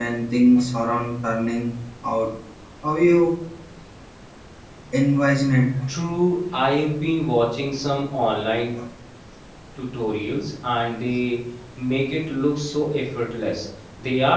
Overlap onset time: none

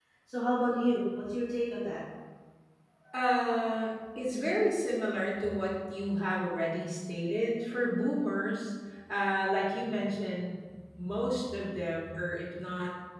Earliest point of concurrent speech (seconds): none

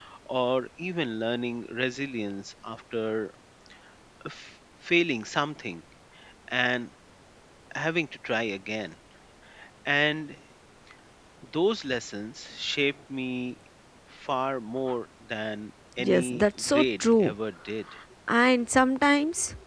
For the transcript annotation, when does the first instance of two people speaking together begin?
16.0 s

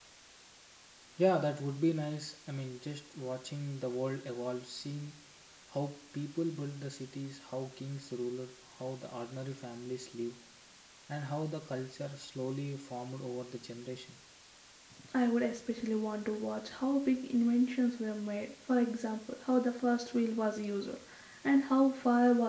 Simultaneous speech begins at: none

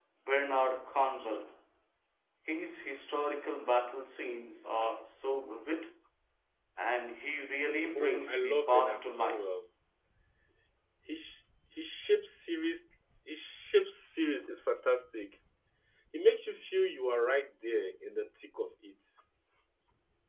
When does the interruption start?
8.0 s

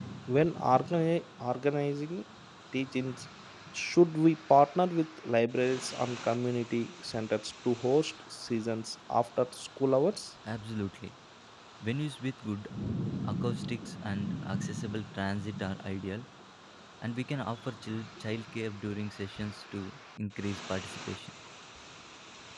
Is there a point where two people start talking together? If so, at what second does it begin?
none

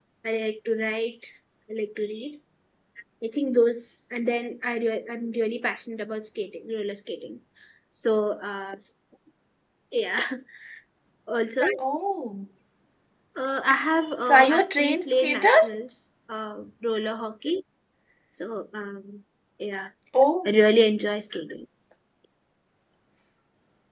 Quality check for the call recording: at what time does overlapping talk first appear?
14.2 s

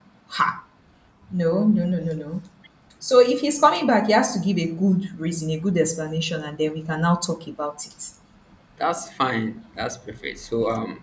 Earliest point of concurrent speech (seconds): none

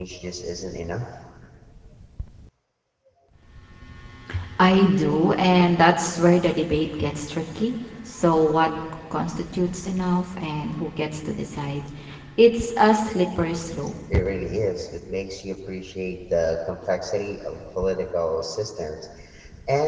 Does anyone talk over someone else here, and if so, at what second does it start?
none

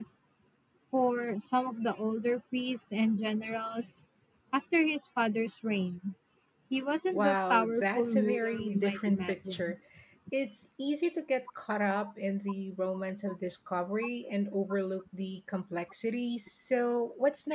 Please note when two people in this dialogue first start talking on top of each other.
7.1 s

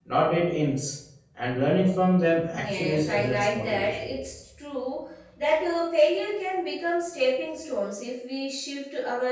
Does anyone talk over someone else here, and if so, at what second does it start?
2.5 s

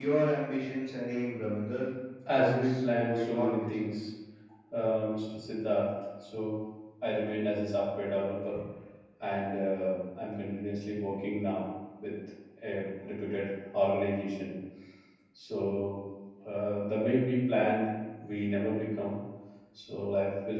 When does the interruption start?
2.3 s

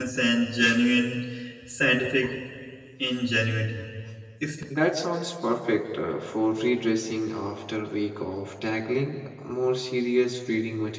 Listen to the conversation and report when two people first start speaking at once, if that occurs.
none

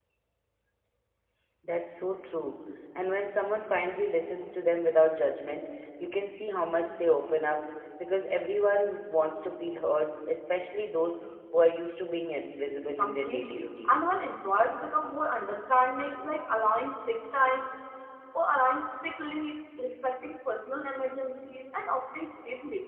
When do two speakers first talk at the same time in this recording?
13.0 s

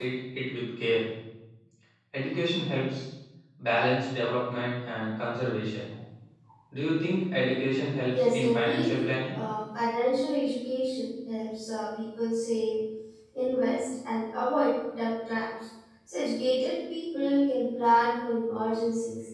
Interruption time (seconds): 8.1 s

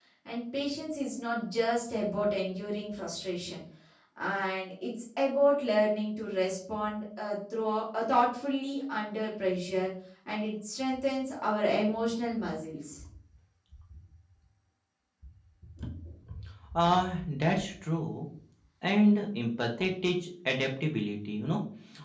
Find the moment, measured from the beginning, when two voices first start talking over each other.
none

